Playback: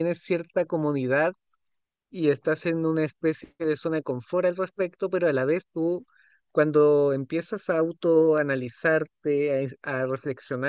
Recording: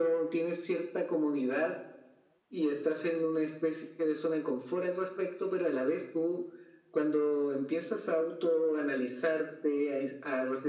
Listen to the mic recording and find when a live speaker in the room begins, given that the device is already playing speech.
none

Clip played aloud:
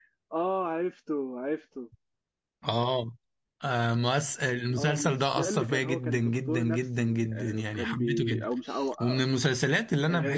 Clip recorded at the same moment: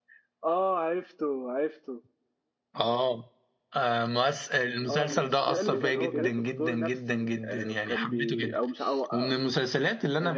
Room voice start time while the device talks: 5.0 s

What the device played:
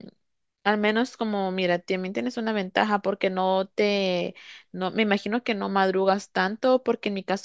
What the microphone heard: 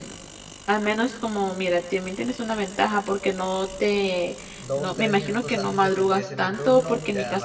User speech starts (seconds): 4.5 s

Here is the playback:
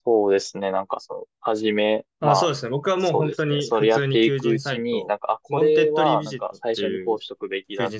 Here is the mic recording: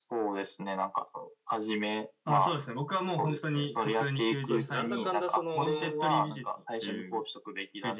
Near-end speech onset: 4.4 s

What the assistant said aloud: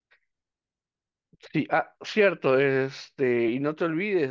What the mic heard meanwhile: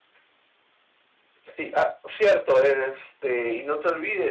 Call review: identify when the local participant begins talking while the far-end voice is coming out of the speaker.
none

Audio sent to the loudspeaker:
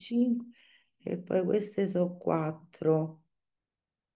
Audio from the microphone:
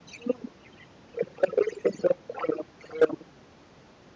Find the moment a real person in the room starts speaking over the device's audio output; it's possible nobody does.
none

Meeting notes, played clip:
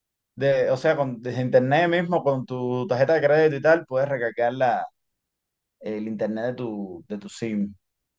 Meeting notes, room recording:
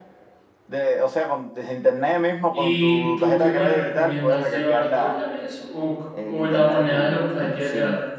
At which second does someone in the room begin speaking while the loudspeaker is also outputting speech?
2.5 s

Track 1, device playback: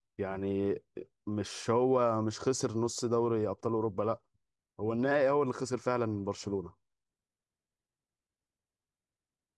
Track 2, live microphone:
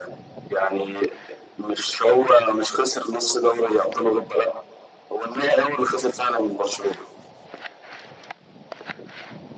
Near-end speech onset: none

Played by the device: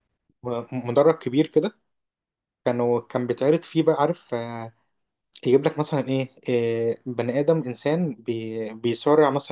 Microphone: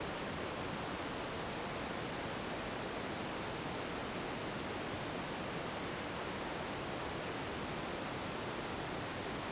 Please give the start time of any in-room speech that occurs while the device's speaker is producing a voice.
none

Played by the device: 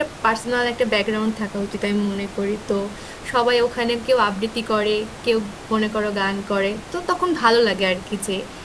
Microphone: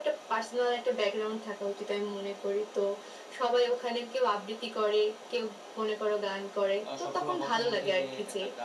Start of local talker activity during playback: 6.9 s

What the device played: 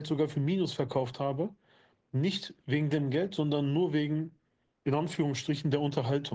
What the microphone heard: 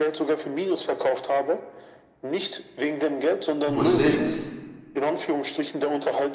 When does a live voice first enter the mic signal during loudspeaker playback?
3.7 s

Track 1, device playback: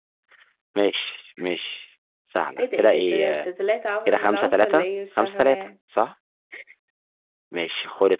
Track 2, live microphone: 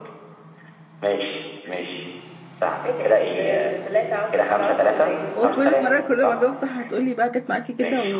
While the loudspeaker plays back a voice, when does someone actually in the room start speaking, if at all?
5.4 s

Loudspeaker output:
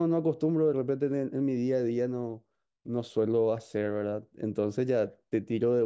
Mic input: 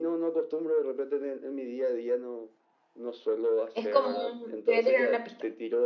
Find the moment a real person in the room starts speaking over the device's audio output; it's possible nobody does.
3.7 s

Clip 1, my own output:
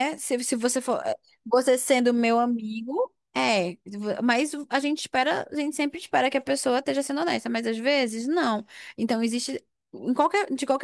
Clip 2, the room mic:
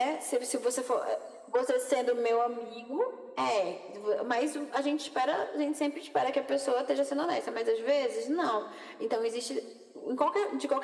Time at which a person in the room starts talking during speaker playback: none

